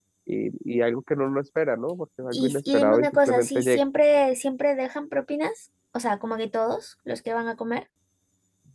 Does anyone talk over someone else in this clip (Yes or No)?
Yes